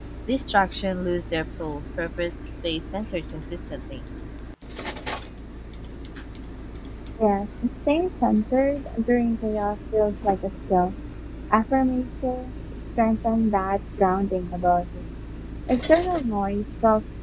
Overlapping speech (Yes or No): No